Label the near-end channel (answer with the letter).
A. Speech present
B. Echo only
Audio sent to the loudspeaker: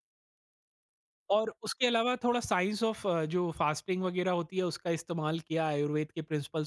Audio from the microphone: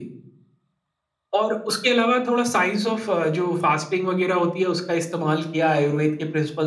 B